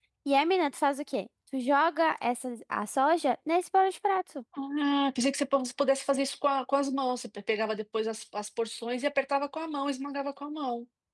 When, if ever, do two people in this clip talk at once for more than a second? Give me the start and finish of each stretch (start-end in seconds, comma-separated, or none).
none